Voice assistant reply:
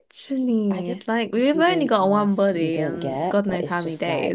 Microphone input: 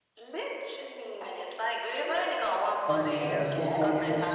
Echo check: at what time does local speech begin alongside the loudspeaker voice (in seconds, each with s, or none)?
2.9 s